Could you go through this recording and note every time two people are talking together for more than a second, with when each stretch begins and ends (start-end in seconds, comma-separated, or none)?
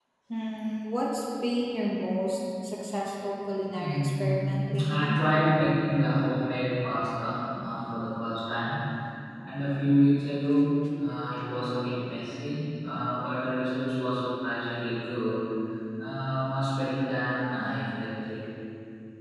3.8-5.2